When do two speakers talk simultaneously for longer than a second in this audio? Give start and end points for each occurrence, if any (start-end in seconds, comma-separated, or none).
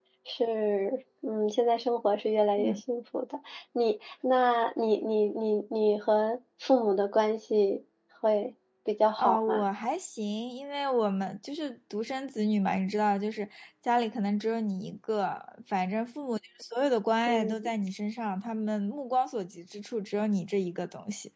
none